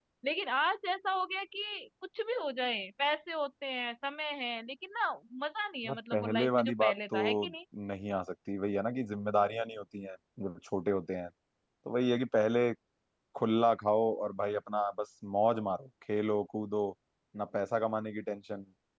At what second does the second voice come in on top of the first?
5.8 s

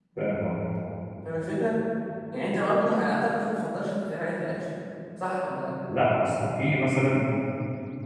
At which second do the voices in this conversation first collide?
none

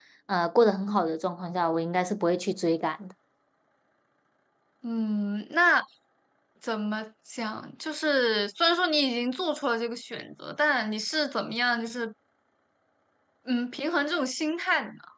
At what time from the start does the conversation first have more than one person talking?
none

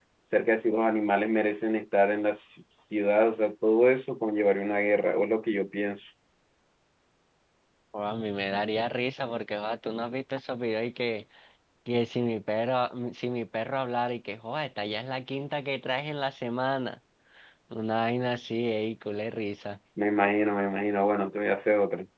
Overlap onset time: none

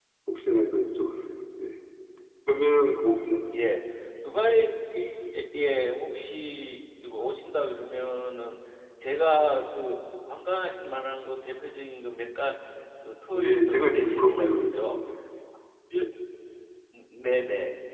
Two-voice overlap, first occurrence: 13.4 s

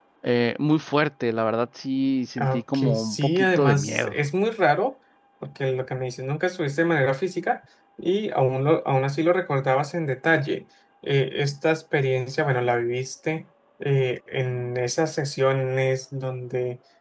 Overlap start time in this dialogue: 2.4 s

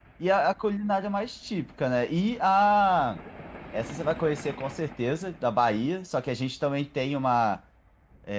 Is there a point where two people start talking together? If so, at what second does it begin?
none

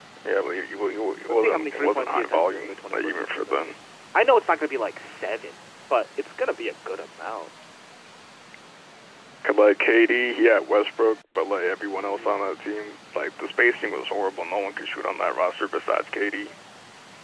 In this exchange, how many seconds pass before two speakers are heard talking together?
1.3 s

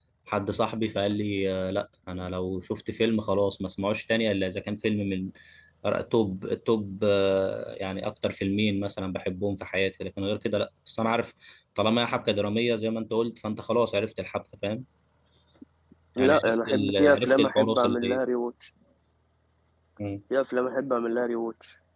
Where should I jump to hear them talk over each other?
16.2 s

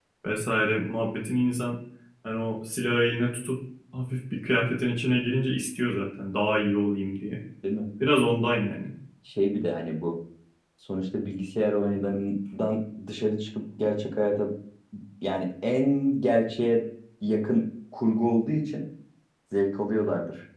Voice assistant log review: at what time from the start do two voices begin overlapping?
none

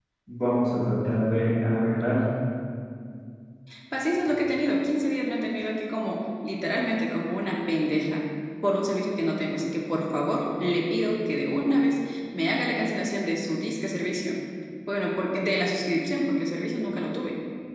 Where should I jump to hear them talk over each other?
none

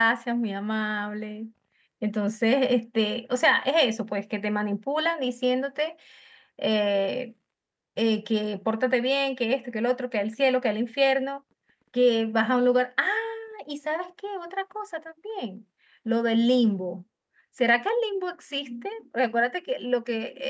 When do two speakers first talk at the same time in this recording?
none

